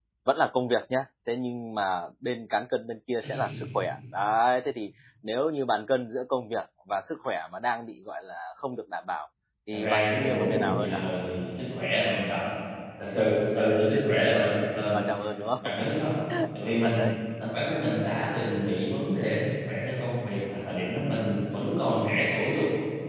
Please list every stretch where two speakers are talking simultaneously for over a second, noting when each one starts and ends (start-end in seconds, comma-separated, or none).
9.7-11.0